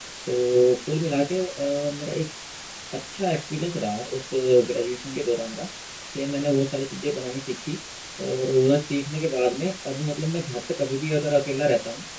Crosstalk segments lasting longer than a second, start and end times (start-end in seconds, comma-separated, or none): none